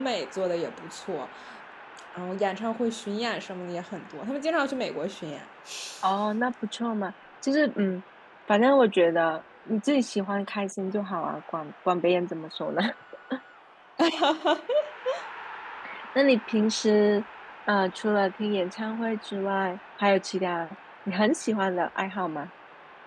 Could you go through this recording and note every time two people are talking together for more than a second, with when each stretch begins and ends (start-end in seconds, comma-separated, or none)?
none